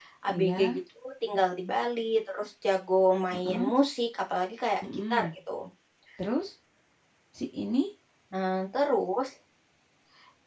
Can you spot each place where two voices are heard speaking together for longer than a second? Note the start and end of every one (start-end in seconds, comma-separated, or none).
none